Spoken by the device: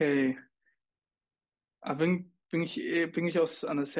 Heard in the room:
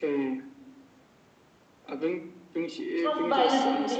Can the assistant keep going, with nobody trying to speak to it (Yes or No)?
No